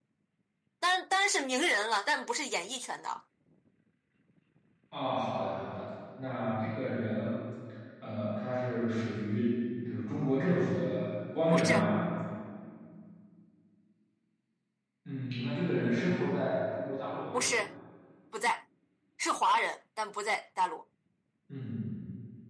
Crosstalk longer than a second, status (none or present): none